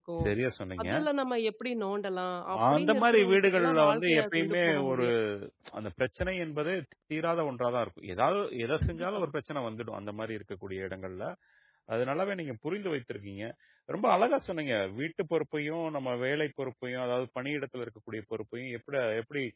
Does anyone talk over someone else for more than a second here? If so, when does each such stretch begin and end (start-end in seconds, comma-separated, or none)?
2.8-5.0